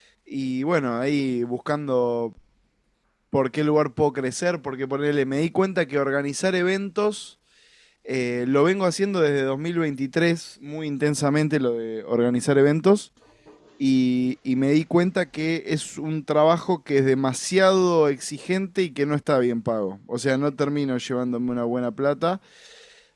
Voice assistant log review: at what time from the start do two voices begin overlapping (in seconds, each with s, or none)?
none